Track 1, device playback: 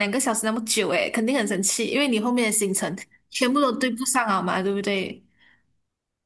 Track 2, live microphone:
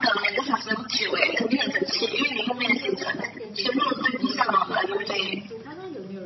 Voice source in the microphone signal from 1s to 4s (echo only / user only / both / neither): both